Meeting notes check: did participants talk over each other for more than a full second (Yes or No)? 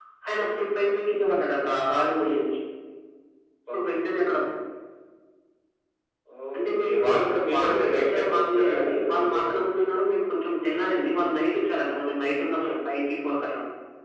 Yes